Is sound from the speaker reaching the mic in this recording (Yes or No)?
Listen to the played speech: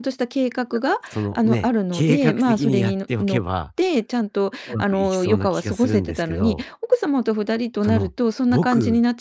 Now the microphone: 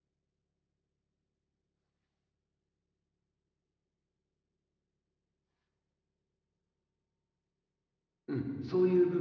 No